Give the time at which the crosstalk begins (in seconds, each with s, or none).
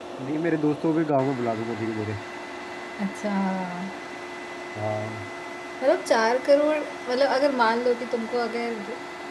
none